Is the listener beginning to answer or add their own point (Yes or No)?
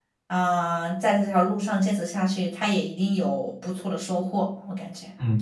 Yes